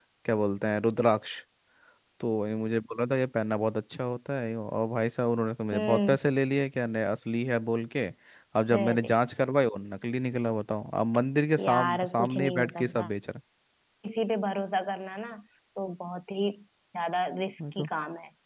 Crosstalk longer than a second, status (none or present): present